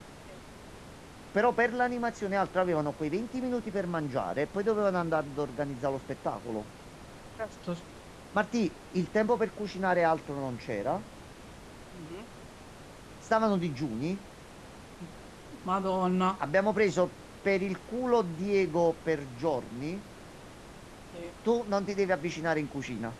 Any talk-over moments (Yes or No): No